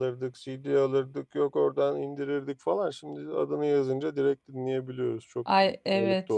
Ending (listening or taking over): taking over